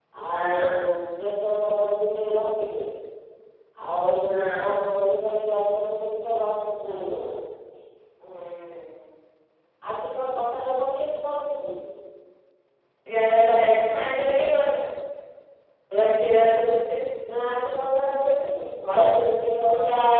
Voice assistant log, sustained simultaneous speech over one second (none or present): none